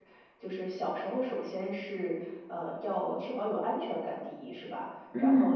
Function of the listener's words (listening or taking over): listening